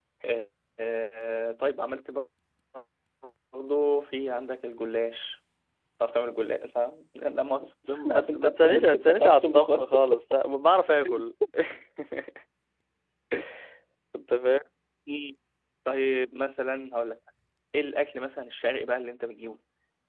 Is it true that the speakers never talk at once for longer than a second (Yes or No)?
No